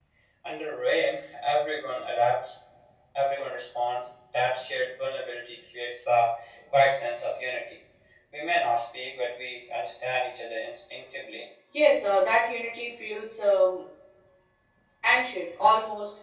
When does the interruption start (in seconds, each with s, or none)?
none